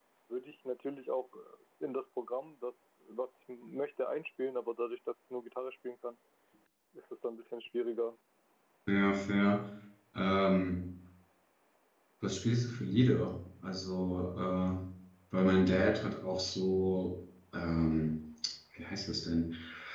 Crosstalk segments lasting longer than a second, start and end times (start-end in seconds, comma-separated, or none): none